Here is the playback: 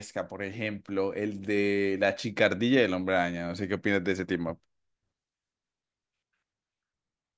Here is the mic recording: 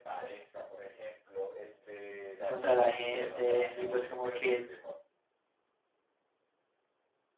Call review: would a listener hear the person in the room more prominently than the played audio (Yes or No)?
Yes